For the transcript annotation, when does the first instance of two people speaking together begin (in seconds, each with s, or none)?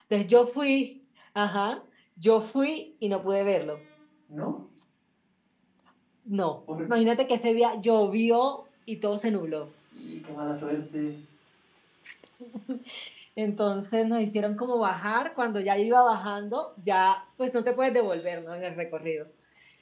none